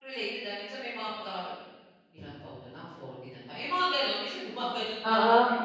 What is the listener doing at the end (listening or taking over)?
taking over